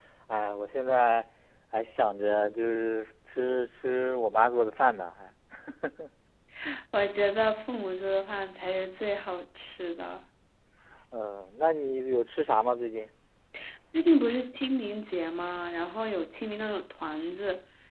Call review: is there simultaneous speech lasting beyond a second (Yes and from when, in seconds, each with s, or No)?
No